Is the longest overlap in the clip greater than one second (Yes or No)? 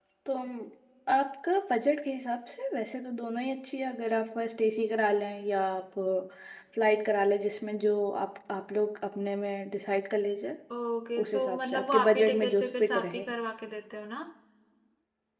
Yes